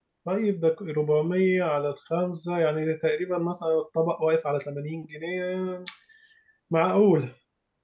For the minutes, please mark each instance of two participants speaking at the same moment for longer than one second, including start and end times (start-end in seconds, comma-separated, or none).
none